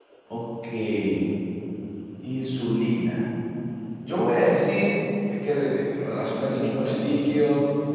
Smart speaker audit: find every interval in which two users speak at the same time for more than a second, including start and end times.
none

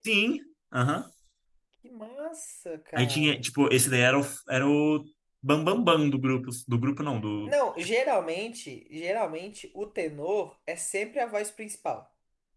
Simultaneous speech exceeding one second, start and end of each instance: none

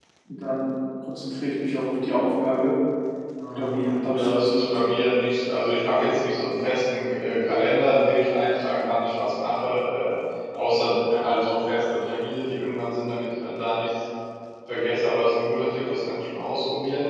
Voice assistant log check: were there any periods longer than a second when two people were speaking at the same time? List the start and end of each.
3.6-4.9

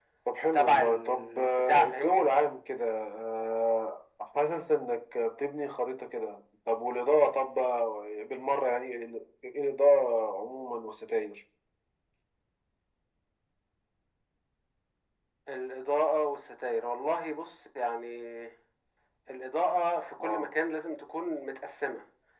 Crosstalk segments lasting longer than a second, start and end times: 0.5-2.2

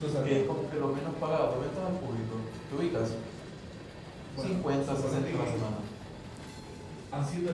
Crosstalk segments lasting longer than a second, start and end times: 4.4-5.6

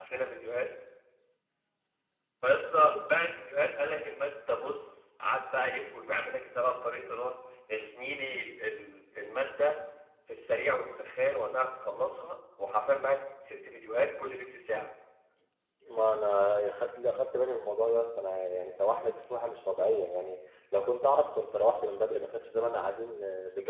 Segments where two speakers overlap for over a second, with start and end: none

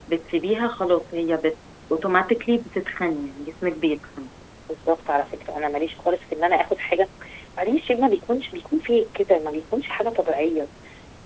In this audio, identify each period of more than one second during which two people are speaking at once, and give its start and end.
none

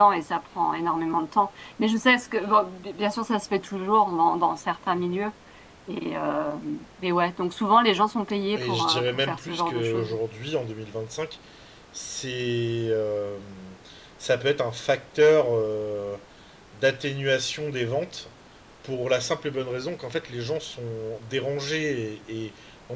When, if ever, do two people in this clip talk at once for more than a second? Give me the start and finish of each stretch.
8.6-10.1

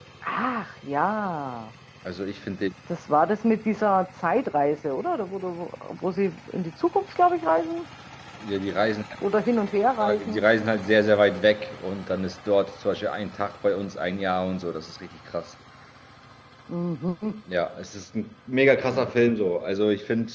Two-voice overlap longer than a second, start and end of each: none

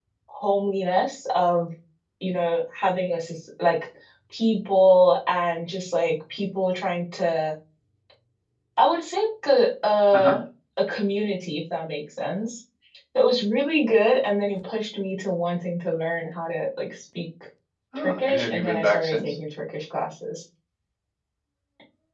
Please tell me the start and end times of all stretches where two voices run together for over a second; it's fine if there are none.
17.9-19.3

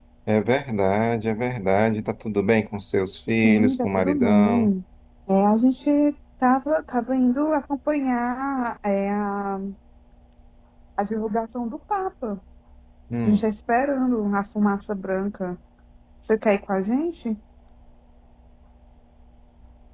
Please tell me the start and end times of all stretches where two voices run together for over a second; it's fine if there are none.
3.3-4.7

